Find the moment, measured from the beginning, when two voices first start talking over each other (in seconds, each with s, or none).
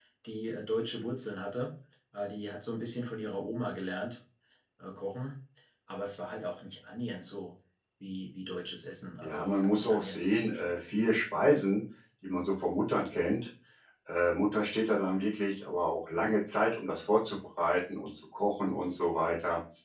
9.2 s